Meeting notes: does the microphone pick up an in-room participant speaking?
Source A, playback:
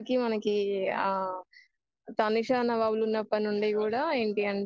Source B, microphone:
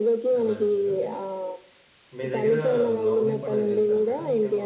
Yes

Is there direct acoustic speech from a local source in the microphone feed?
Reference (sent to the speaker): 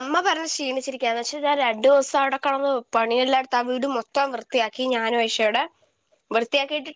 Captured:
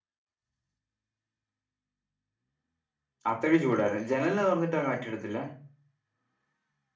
Yes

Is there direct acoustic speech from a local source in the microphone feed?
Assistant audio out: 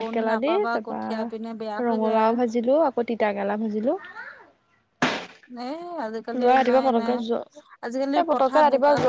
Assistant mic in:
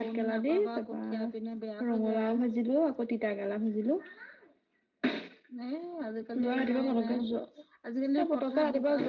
No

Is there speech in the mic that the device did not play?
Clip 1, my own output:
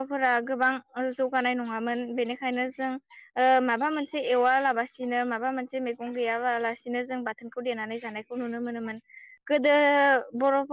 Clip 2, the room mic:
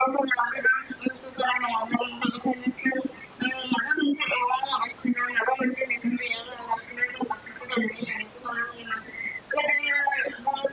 No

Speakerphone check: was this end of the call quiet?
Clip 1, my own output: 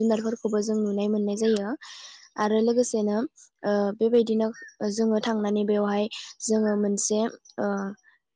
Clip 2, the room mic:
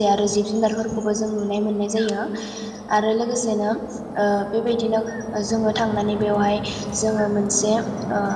Yes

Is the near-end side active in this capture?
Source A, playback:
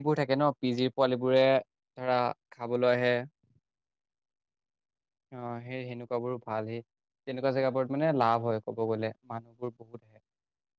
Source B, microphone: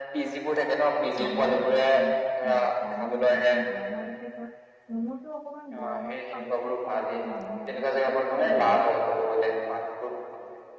Yes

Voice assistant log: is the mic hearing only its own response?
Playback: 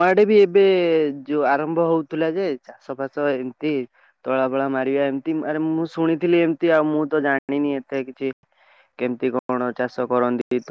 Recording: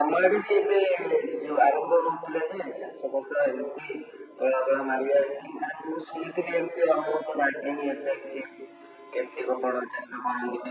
Yes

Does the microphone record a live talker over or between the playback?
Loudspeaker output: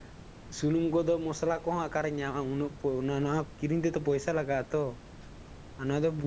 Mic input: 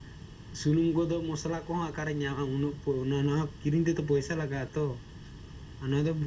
No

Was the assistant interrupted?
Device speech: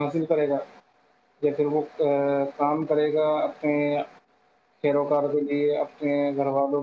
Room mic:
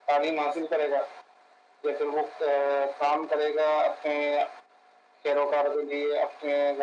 No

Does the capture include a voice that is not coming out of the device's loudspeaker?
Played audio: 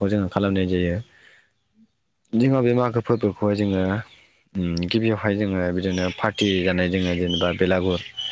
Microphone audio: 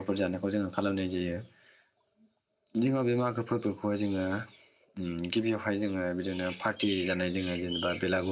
No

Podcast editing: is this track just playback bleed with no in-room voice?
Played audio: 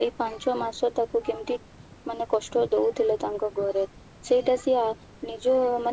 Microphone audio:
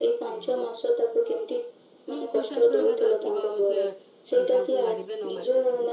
No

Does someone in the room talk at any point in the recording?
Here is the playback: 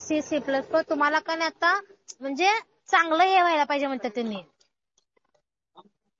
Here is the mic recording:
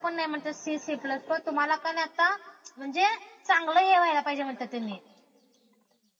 No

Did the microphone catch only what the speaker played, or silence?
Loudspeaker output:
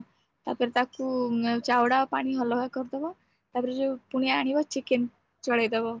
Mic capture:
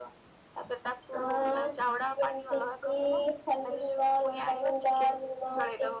No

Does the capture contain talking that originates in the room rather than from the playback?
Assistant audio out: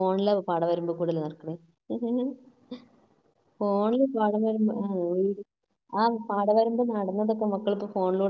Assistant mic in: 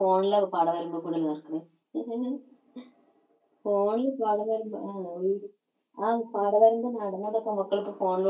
No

